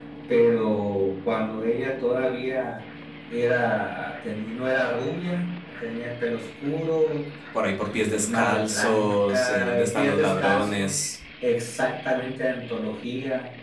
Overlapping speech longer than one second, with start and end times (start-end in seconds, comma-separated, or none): 7.8-11.0